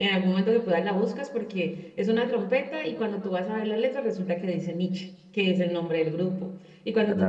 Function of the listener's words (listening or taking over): listening